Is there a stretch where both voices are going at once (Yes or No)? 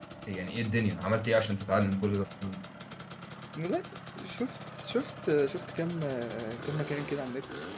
No